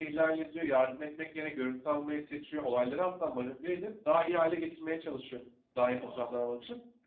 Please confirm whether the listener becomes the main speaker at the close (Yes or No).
No